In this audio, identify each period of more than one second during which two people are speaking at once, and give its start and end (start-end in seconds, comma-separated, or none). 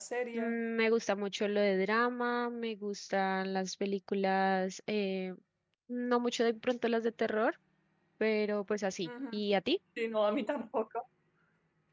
none